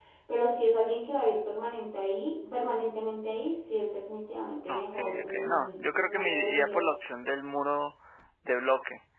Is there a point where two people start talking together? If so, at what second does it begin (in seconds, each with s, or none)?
4.7 s